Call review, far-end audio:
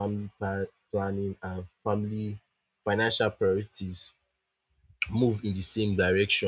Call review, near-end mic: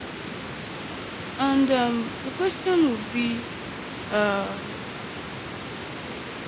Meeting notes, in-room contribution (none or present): present